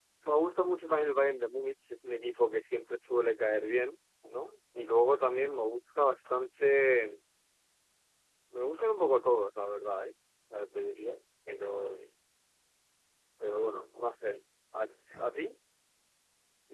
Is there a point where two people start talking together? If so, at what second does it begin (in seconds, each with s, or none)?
none